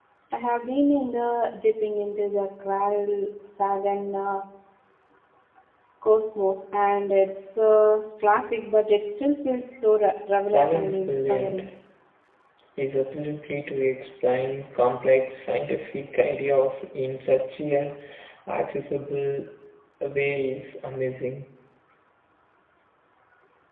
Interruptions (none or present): present